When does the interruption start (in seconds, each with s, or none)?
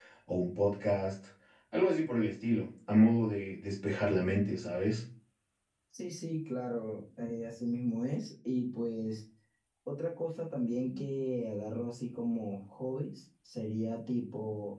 none